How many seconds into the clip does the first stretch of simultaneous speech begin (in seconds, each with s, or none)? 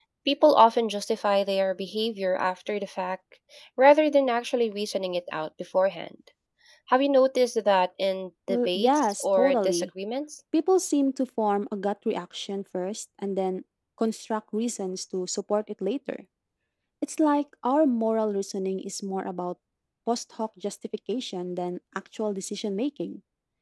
8.5 s